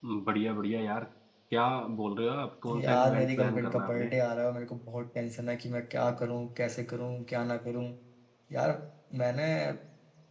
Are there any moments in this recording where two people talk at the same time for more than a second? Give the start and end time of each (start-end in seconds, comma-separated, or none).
2.7-4.1